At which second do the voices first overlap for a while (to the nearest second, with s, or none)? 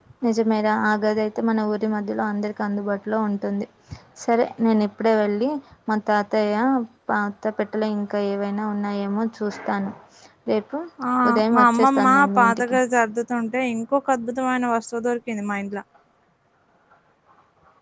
12 s